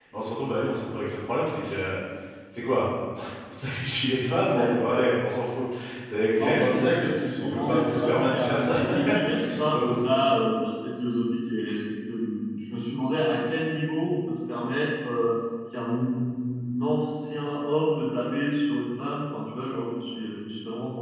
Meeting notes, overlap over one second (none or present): present